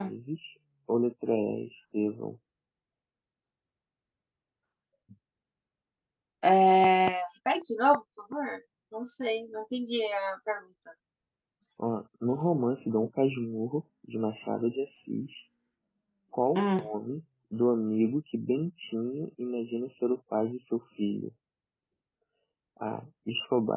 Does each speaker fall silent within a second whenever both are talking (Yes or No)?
Yes